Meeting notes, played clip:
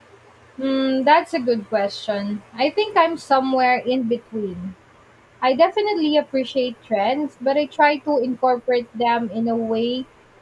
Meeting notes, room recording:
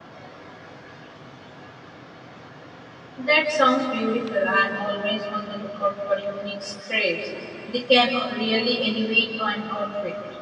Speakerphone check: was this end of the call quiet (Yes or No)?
No